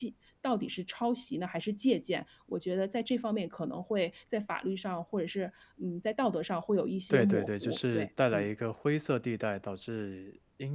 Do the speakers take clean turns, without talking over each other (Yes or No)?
No